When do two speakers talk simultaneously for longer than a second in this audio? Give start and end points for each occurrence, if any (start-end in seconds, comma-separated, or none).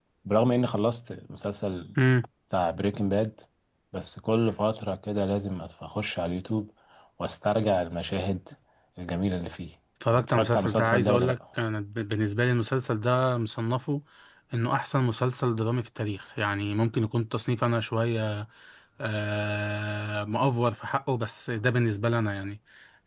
10.1-11.4